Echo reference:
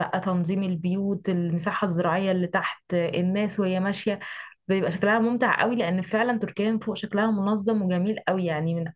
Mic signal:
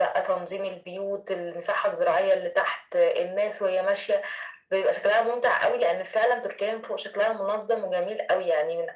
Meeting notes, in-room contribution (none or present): none